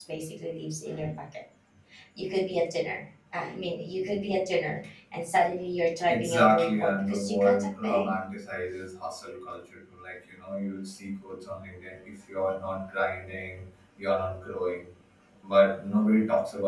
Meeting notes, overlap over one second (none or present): present